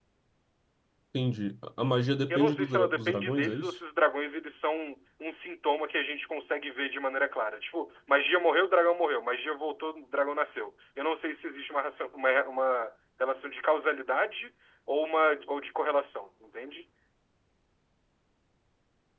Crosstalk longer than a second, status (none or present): present